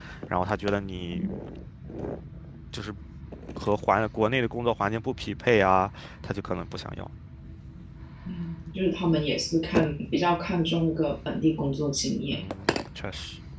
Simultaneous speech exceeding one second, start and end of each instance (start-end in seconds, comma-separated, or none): none